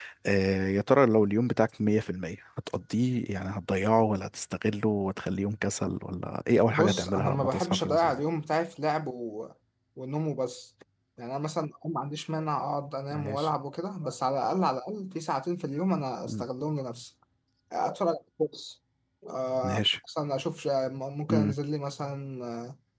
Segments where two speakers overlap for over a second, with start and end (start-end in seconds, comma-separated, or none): 6.7-8.2